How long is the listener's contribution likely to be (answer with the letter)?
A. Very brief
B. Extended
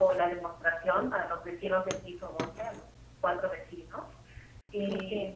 A